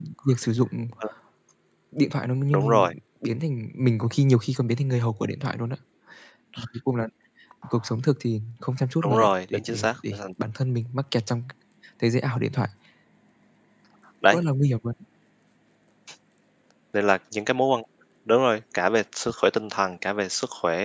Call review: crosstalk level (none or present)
present